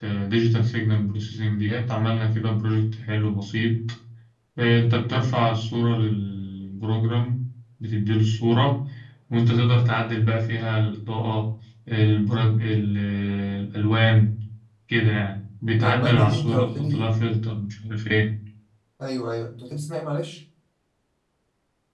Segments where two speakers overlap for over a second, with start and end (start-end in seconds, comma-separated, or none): 15.8-17.2